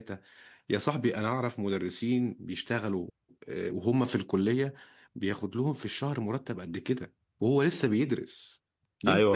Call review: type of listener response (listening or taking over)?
taking over